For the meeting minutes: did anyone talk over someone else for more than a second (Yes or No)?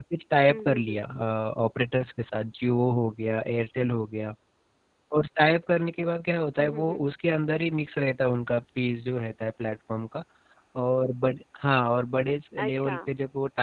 No